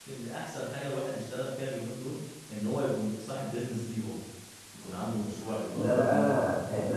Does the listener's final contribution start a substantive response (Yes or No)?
Yes